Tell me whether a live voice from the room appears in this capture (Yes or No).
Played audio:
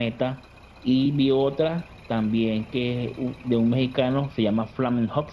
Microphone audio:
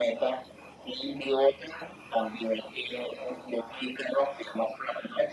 No